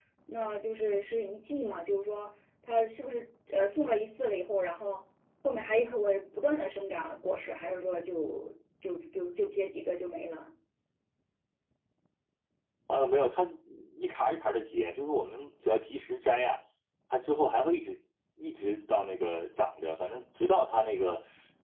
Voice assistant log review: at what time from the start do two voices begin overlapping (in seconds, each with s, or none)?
none